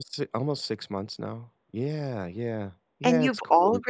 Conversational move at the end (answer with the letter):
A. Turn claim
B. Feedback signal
A